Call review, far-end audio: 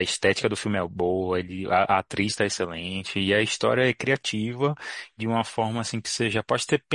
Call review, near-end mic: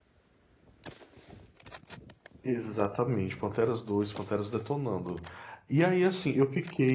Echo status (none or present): none